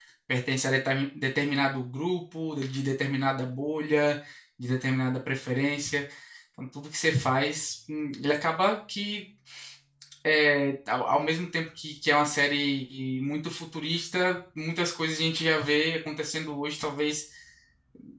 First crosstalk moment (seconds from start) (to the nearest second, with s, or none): none